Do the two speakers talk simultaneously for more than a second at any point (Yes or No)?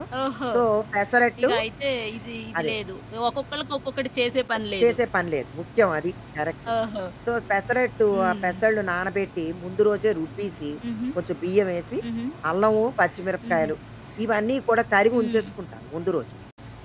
No